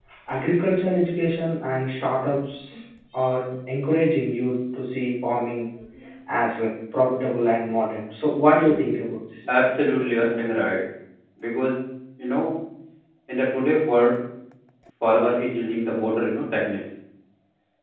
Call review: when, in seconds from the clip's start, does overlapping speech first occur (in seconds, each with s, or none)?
none